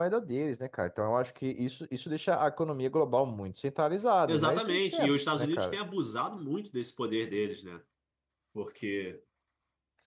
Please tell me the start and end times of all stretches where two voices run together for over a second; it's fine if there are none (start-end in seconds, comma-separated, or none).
4.3-5.8